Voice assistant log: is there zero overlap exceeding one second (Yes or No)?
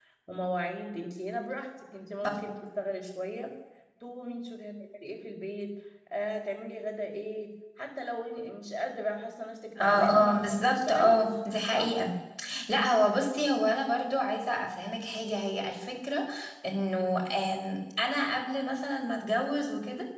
No